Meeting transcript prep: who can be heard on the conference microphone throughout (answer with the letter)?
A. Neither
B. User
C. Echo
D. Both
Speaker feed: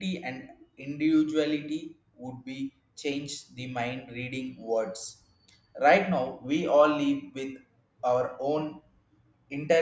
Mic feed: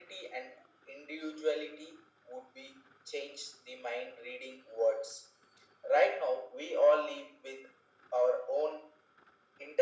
C